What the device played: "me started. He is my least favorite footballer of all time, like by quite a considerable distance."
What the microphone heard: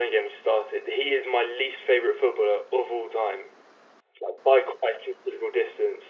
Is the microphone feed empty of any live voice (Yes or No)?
Yes